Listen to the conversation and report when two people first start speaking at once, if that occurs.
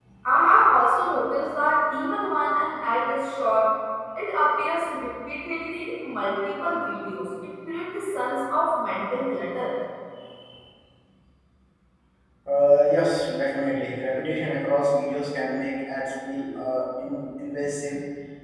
none

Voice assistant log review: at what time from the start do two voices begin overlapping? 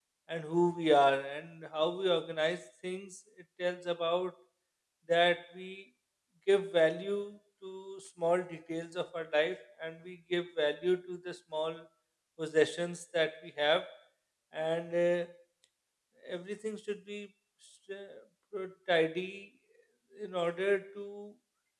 none

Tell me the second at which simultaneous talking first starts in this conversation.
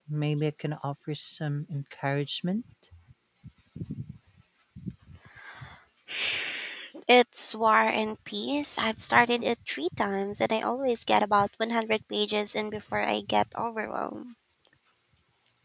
none

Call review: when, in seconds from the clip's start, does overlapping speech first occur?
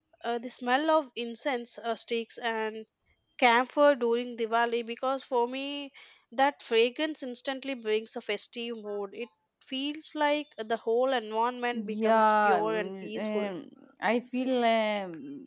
11.7 s

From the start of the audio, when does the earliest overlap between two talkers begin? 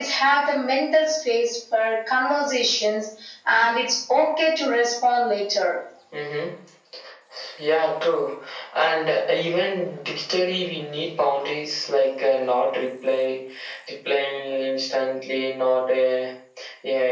none

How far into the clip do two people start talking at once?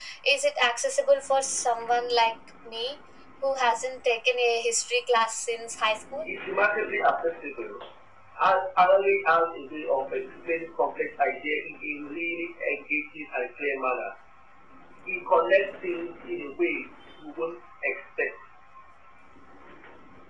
none

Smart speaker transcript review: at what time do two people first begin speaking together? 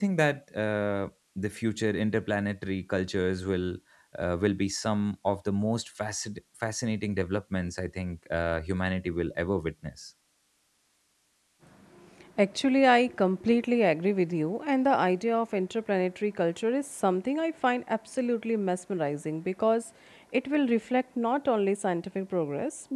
none

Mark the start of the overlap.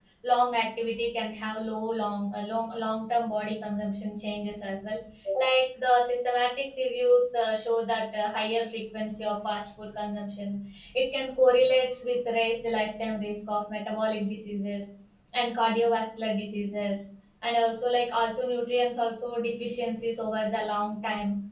none

